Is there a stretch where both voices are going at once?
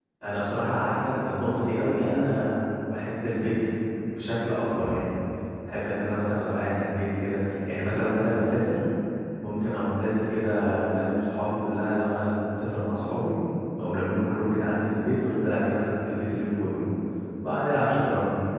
No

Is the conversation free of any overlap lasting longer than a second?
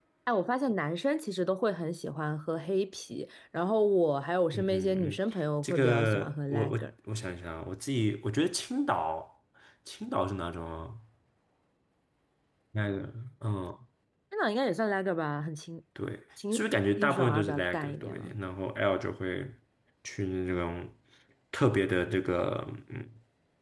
No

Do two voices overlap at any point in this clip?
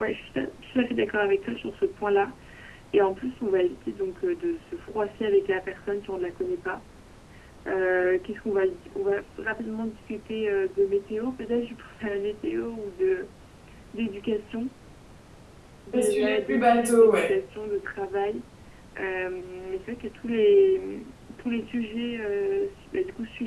Yes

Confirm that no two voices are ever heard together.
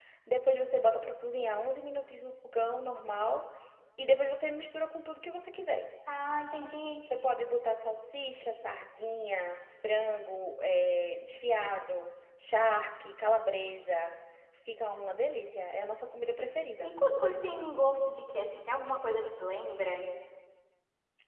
Yes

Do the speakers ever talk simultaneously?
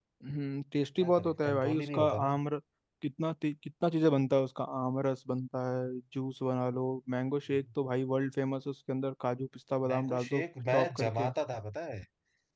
Yes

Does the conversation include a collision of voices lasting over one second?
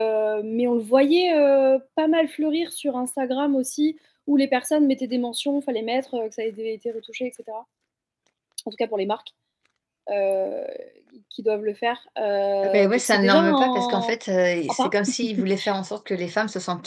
Yes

